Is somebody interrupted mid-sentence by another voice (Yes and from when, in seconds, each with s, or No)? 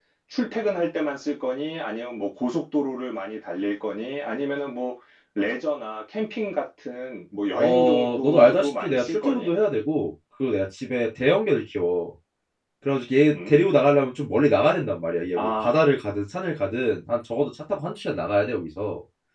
Yes, from 7.6 s